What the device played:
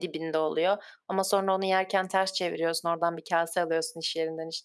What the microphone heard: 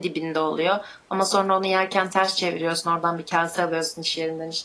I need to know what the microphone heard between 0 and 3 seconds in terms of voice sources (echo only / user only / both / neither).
echo only